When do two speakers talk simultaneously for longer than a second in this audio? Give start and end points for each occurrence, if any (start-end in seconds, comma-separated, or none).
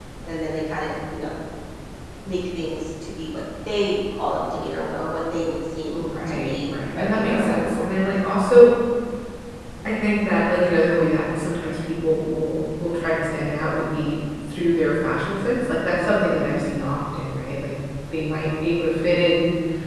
5.9-7.9